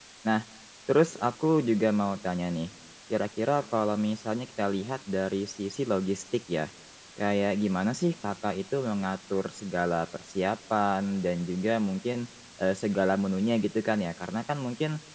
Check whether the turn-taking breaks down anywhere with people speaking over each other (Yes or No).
No